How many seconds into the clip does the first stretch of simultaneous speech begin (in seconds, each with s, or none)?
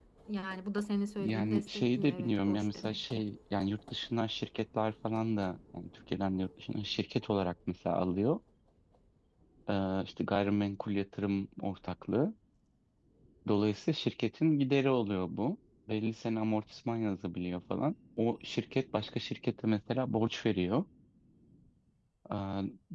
1.2 s